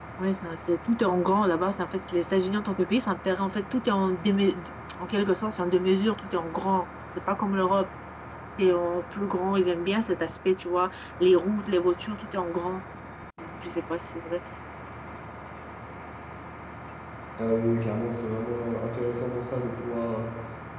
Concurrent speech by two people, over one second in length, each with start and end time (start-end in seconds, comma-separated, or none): none